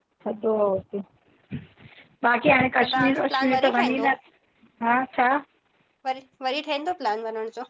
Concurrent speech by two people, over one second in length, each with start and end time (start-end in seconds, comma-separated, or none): 2.8-4.1